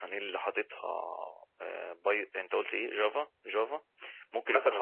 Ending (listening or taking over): listening